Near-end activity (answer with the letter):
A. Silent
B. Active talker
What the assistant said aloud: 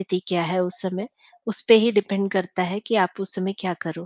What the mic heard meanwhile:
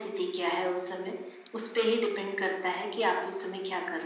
A